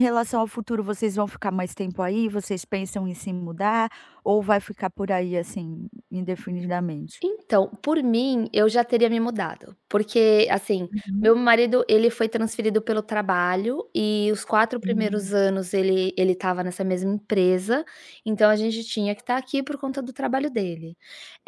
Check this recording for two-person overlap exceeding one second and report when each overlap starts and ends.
none

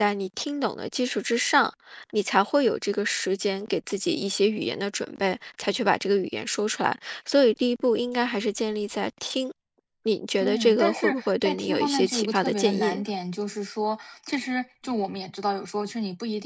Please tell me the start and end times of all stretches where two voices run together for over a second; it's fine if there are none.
10.4-13.0

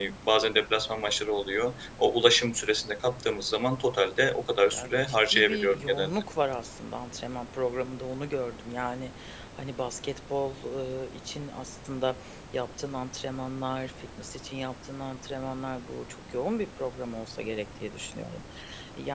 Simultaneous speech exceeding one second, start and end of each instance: 4.7-6.1

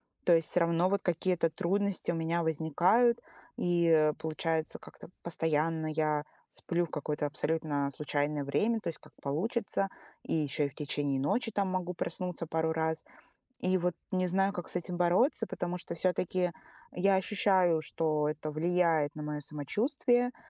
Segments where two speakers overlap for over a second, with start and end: none

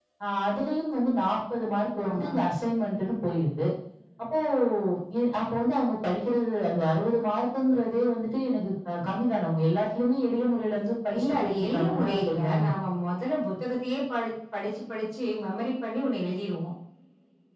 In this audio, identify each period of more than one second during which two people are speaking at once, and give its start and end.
11.2-12.6

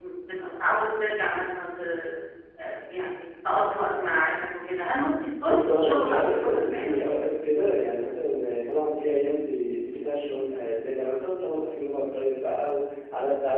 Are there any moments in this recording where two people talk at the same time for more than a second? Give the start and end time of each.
5.5-7.0

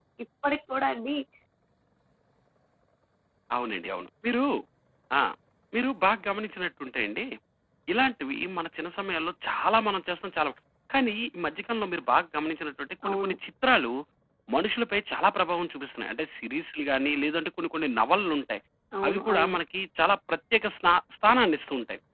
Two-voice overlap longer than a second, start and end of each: none

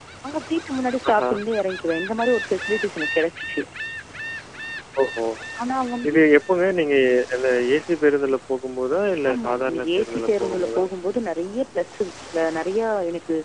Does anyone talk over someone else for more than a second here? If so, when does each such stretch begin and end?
9.3-10.8

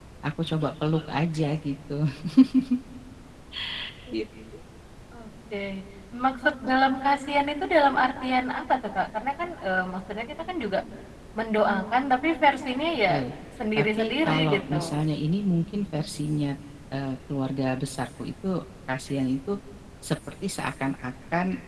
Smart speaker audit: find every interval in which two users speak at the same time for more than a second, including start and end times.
13.8-15.0

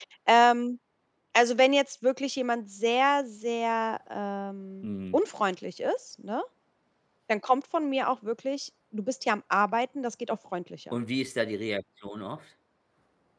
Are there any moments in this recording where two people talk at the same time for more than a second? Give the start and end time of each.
none

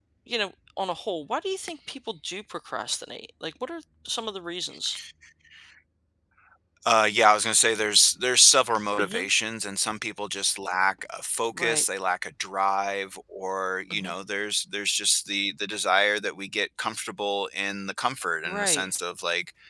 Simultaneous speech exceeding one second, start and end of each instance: none

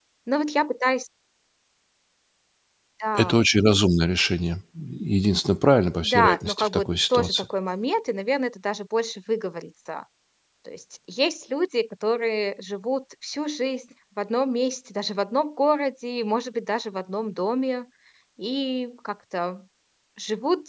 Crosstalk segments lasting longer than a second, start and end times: 6.0-7.5

